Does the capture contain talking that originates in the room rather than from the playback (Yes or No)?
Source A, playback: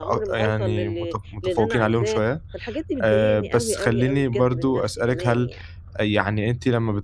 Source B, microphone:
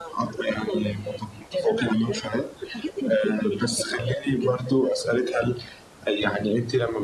No